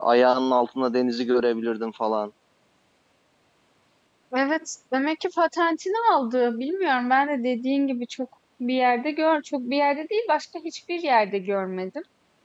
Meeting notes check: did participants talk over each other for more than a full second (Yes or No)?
No